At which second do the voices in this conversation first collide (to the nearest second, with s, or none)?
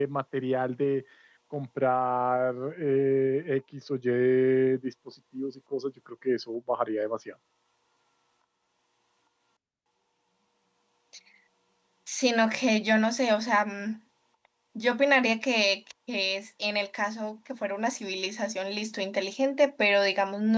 none